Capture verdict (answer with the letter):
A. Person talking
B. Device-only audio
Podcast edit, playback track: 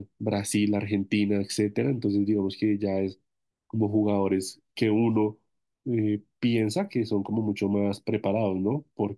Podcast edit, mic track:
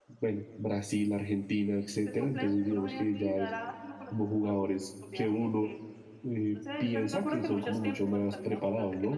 A